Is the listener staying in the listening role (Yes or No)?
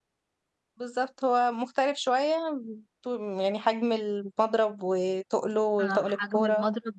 No